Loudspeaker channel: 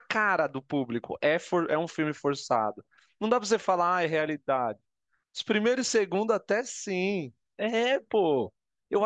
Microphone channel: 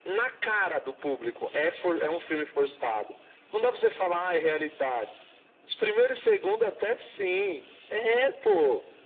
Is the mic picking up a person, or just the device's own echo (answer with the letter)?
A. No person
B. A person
A